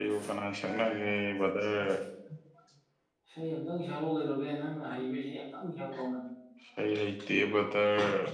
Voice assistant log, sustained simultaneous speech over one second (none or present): none